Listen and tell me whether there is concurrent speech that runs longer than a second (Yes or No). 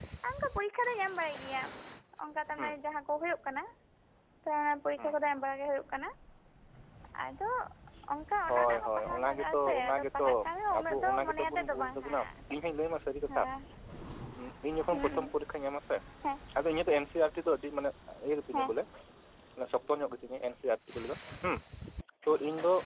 Yes